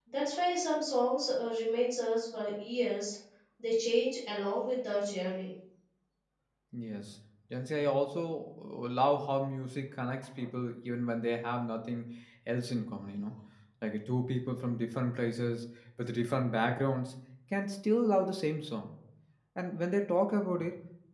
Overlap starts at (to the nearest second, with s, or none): none